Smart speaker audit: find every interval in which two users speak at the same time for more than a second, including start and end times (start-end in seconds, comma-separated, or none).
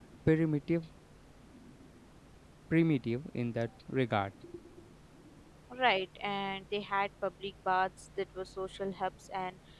none